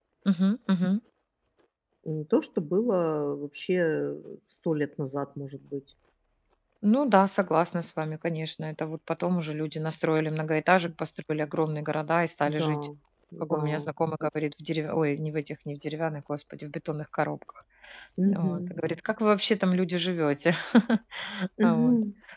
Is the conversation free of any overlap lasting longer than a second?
Yes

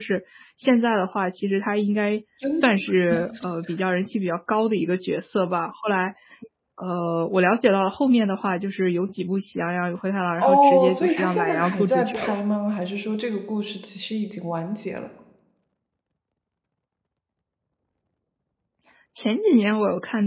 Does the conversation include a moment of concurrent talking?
Yes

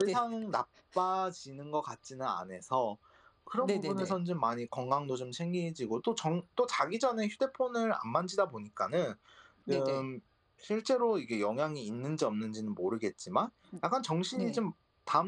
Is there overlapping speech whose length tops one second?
No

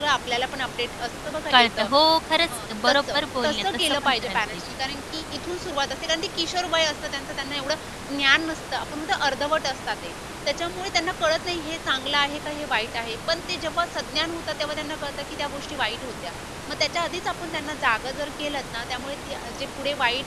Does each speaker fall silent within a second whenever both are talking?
No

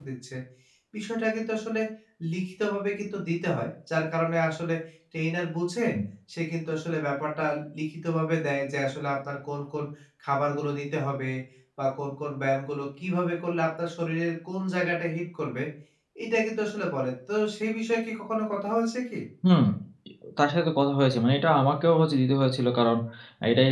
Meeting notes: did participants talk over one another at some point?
No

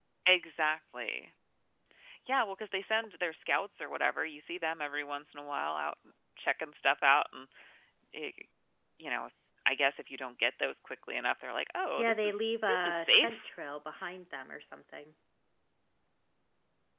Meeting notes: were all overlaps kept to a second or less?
No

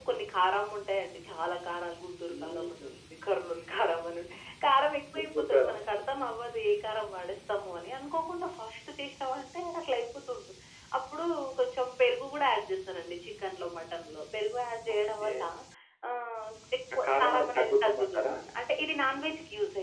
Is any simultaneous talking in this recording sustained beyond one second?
Yes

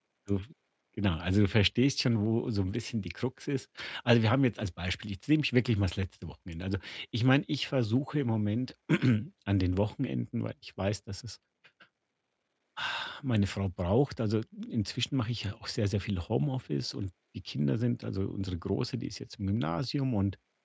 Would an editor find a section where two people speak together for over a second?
No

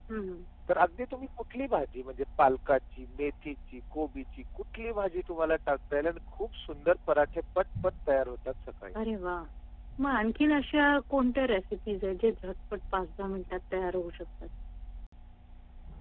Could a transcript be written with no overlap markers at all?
Yes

